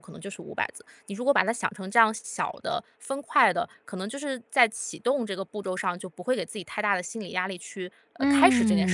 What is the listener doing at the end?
taking over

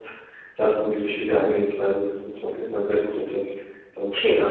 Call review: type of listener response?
taking over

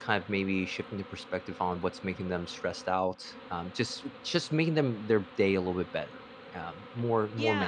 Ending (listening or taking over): taking over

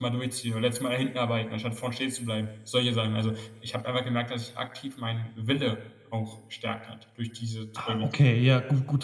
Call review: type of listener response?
taking over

